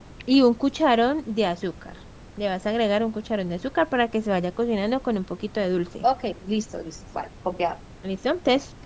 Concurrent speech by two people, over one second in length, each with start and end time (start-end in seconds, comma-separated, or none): none